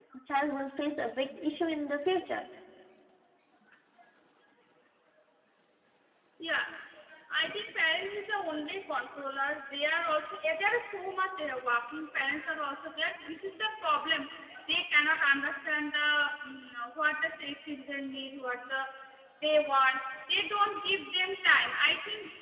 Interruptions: none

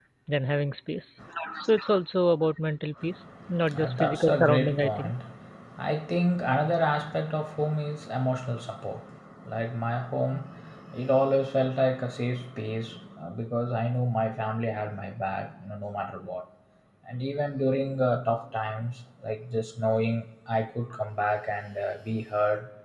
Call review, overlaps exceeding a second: present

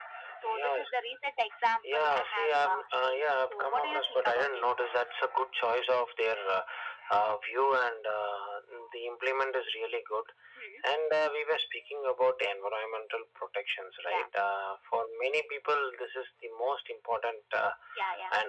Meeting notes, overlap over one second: present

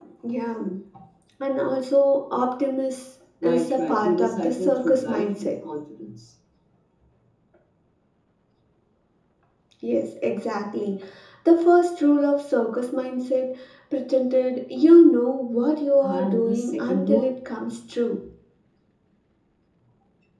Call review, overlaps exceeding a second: present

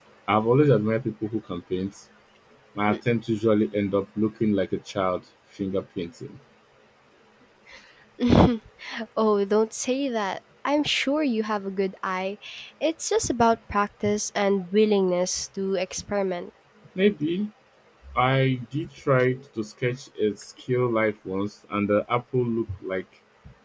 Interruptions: none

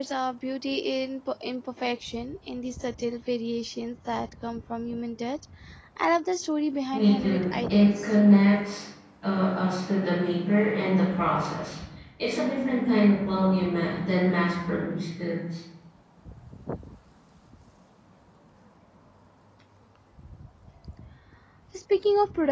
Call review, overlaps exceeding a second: present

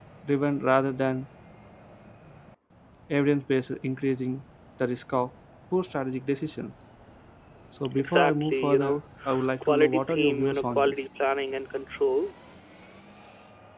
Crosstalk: present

